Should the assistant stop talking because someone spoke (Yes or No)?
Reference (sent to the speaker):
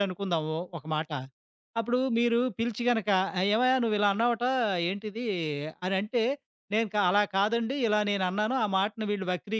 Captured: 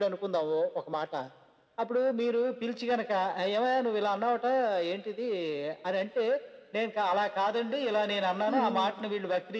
Yes